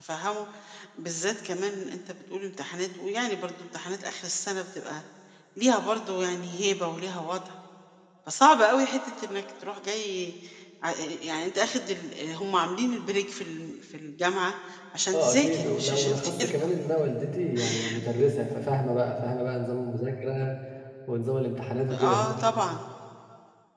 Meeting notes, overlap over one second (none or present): present